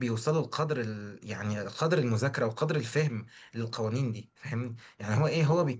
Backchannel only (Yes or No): Yes